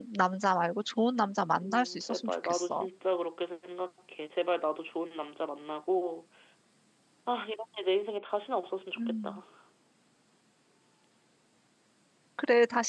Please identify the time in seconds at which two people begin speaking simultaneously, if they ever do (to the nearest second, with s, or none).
2 s